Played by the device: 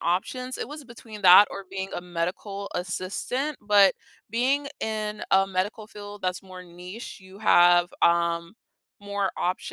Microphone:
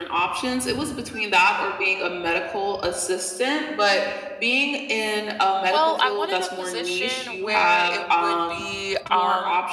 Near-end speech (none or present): present